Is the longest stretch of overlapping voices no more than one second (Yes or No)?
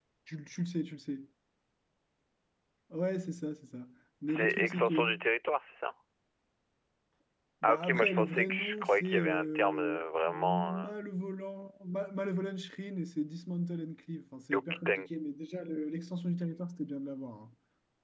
No